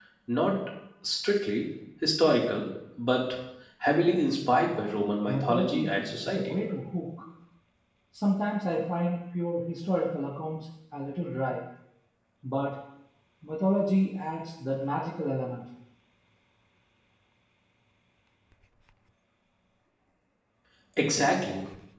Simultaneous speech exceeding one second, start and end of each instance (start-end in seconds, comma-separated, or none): 5.3-6.6